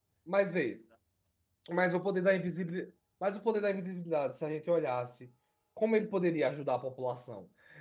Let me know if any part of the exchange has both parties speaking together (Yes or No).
No